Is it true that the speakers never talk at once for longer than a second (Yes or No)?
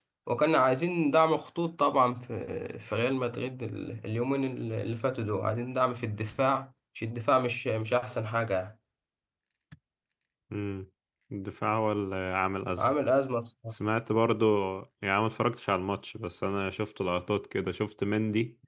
Yes